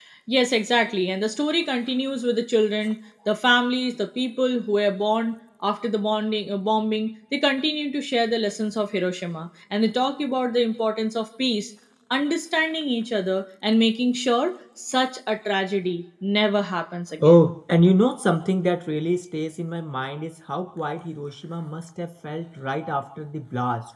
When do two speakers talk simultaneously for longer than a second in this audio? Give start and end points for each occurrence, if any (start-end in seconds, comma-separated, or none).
none